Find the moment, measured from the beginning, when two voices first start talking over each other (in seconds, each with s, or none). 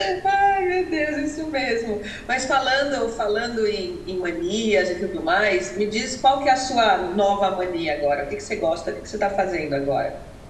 none